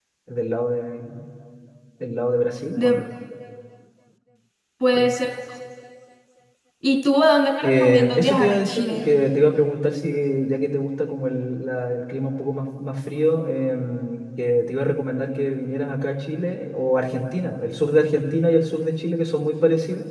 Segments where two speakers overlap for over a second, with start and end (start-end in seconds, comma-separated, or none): 7.6-9.0